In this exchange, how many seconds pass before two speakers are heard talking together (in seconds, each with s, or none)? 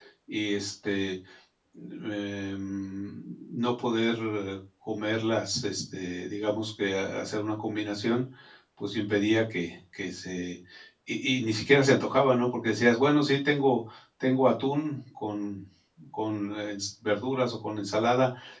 none